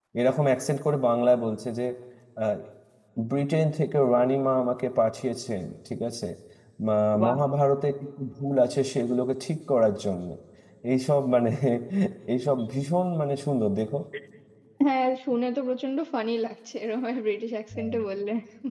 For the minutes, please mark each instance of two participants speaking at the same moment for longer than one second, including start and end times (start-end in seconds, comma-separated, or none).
none